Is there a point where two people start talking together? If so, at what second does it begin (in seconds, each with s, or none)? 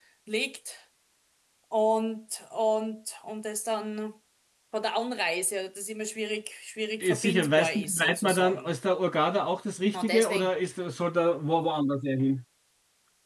7.0 s